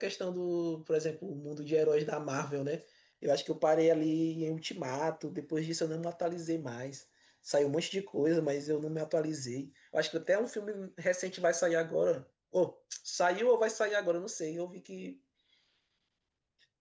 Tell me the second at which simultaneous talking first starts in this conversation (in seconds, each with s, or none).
none